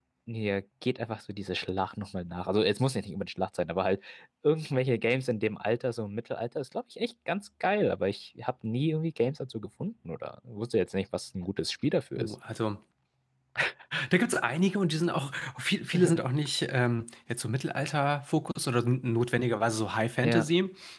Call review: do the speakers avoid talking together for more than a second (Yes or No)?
Yes